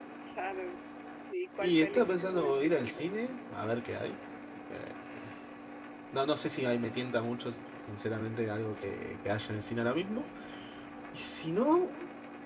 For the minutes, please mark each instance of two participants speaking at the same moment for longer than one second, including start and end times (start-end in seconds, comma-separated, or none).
1.6-2.9